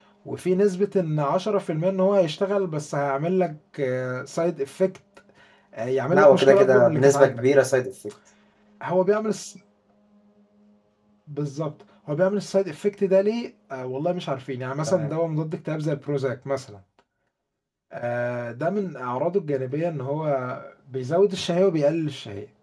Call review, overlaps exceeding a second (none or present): present